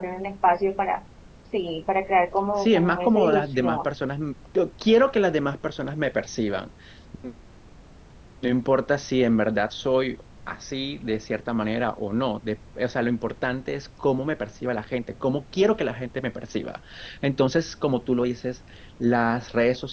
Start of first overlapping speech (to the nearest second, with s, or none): 3 s